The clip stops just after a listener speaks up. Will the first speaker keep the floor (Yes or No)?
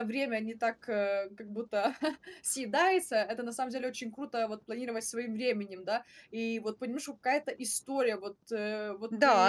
No